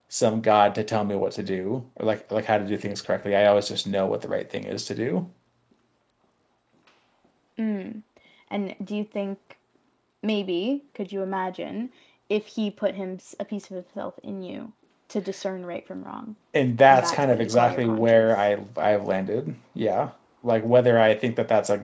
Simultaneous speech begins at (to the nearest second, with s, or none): 17 s